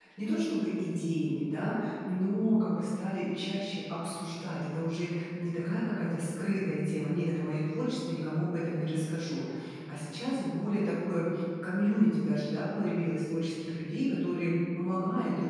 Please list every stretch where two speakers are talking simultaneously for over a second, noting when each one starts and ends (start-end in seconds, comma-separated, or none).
none